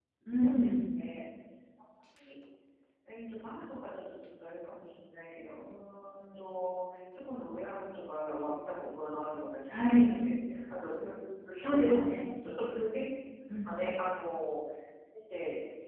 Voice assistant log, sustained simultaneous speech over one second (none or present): none